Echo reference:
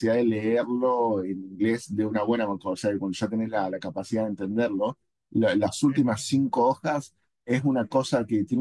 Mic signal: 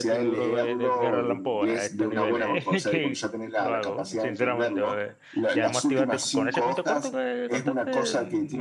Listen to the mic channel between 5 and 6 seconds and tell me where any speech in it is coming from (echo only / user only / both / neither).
both